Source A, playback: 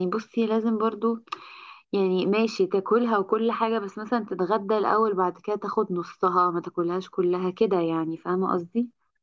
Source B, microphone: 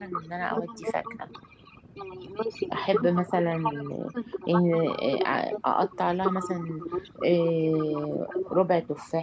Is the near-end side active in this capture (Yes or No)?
Yes